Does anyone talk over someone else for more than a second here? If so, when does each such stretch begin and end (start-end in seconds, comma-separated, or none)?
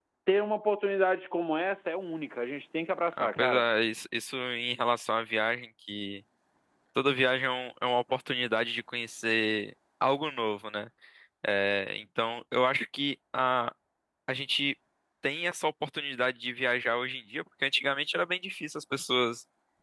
none